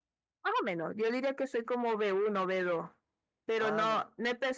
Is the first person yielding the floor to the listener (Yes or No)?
No